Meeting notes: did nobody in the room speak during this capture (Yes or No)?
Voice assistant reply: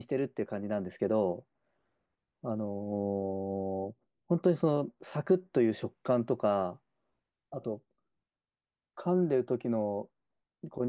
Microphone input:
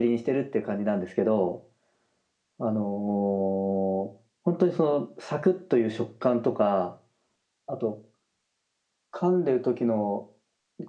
Yes